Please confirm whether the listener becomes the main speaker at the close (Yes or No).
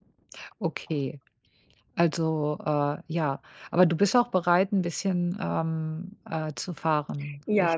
Yes